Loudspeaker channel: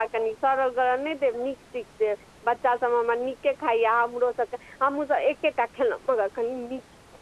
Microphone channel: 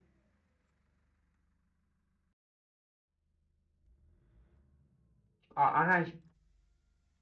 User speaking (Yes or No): Yes